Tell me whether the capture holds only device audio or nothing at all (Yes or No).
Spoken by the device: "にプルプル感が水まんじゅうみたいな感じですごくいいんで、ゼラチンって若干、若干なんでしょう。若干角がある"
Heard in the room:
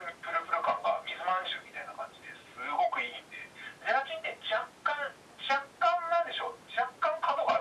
Yes